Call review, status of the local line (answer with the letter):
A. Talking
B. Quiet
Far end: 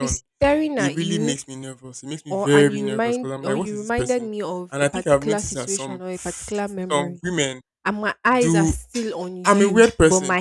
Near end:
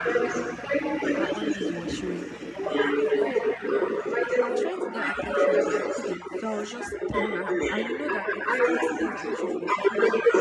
A